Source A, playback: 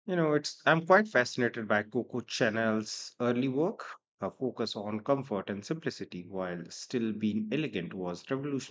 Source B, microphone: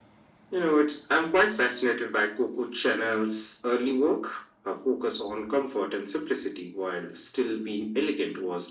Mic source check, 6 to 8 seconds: echo only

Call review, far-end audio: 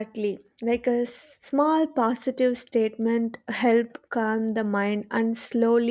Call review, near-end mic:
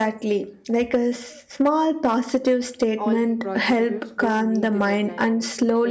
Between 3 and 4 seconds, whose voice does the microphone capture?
both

